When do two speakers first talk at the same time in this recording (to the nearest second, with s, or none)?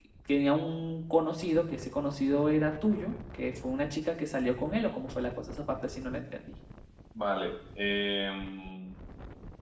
none